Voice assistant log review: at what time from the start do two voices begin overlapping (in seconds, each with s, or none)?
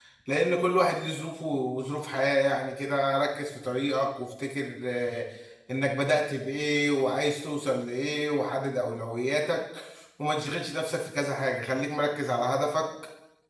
none